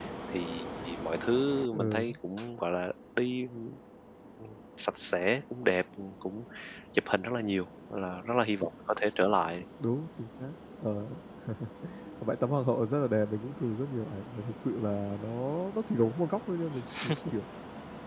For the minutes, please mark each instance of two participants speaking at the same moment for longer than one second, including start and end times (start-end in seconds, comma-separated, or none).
none